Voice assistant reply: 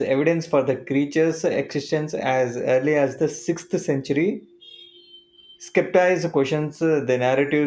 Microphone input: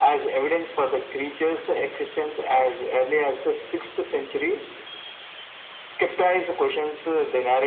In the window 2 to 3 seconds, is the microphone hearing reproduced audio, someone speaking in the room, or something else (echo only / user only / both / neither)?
echo only